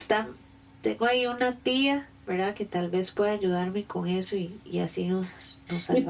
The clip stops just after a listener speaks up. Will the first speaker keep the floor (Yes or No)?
No